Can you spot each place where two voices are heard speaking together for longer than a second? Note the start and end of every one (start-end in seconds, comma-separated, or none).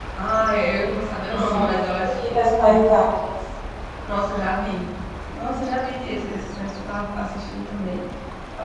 1.3-2.8